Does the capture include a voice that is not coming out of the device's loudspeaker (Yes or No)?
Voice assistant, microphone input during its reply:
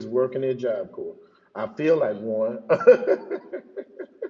Yes